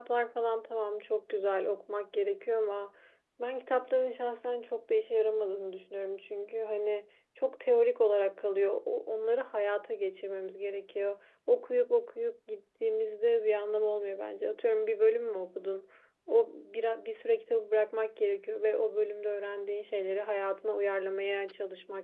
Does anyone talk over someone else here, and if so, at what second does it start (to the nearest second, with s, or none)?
none